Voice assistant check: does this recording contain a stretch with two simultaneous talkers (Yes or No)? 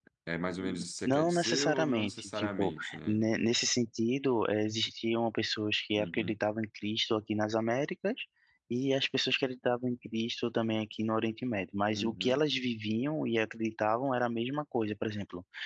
Yes